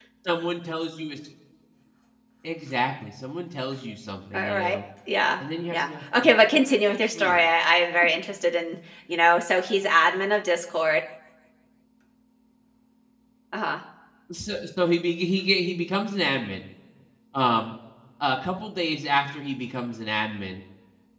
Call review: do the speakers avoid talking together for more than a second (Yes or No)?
No